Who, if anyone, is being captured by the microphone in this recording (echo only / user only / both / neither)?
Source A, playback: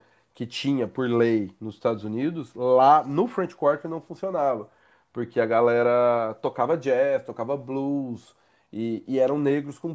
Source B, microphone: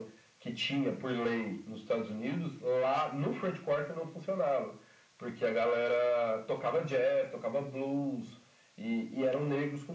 echo only